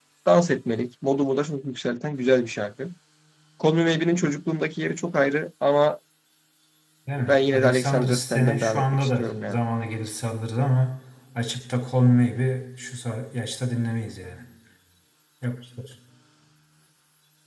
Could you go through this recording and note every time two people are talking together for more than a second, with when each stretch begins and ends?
7.3-9.6

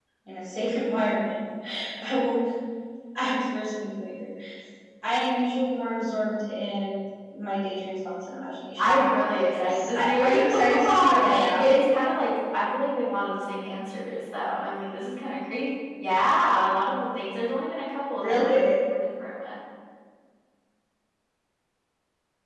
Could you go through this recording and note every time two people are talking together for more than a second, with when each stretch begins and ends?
8.8-11.7

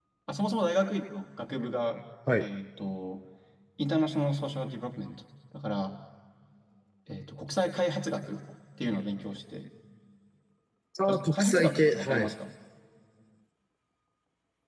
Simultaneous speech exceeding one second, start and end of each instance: 11.1-12.3

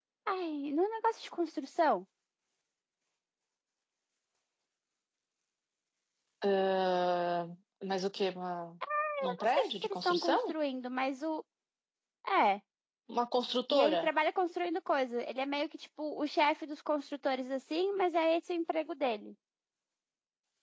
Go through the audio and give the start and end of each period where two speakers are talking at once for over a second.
9.3-10.5

